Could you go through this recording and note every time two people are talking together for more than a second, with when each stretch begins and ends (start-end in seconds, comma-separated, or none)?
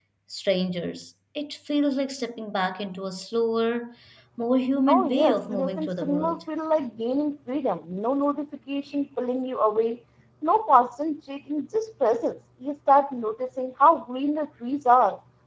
4.9-6.4